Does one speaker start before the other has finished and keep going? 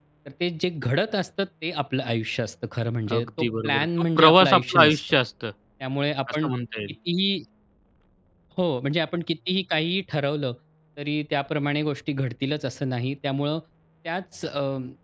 Yes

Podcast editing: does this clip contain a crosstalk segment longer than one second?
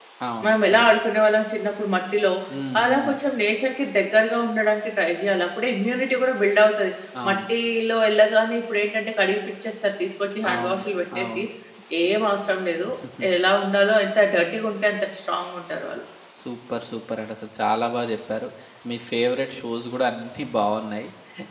No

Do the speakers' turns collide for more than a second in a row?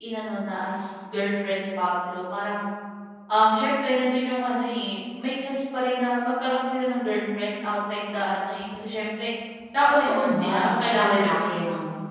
Yes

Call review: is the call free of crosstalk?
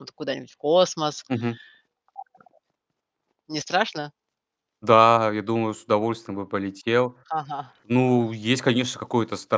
Yes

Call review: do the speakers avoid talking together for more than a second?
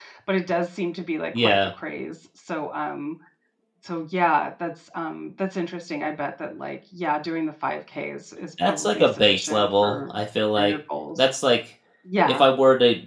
No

